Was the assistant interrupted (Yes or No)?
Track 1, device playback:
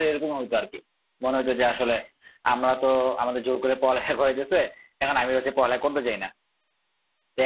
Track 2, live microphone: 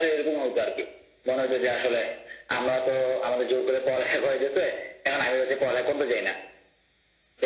No